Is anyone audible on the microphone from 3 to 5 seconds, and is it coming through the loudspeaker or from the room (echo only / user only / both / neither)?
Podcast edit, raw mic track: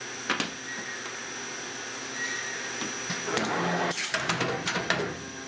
neither